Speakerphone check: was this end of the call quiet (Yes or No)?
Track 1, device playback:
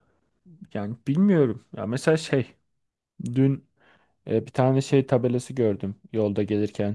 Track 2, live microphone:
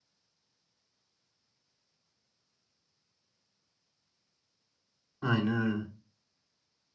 No